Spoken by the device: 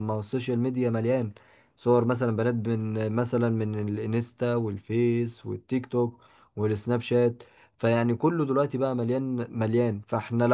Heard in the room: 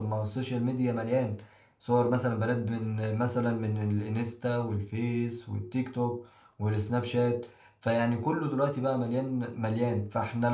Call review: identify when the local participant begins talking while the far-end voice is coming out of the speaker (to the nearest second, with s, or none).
none